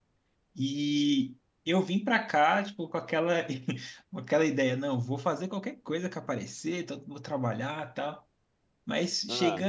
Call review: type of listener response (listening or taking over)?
listening